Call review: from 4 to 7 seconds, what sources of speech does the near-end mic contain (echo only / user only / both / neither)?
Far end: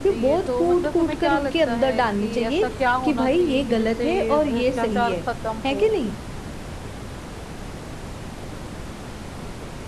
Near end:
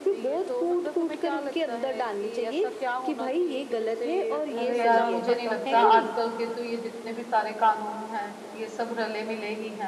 both